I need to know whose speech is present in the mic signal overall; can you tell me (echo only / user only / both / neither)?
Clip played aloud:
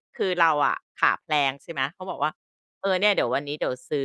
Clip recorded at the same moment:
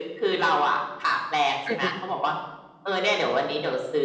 both